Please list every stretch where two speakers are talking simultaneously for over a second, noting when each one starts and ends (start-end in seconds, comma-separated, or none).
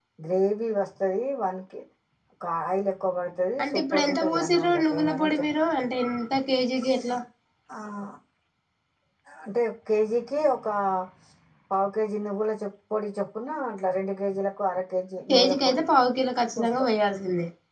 3.6-5.5